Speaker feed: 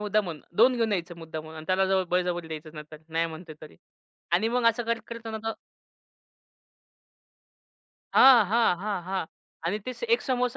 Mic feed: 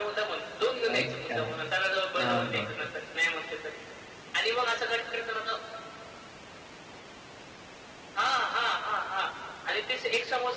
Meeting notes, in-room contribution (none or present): present